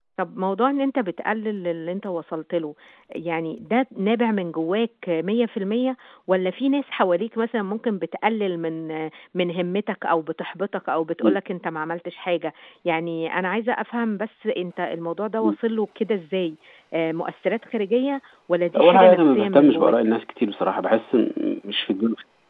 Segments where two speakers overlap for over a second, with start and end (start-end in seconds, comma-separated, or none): 18.7-19.9